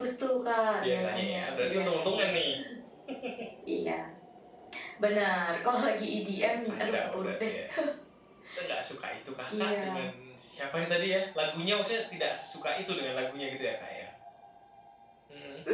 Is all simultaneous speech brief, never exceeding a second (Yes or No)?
No